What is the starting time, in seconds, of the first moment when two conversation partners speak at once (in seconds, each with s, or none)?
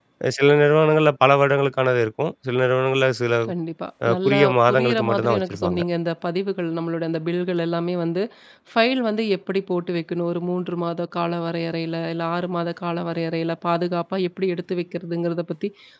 4.1 s